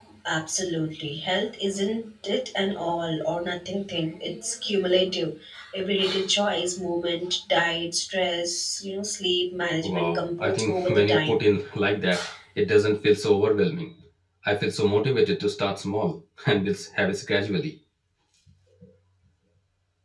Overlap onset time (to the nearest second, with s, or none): 10 s